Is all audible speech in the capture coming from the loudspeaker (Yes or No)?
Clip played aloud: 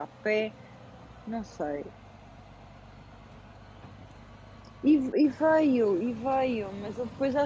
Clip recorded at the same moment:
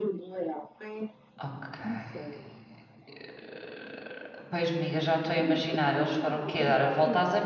No